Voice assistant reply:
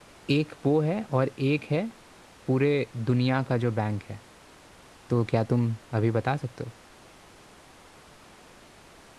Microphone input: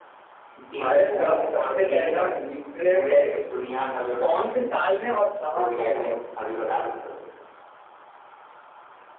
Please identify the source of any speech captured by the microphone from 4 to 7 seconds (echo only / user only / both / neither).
both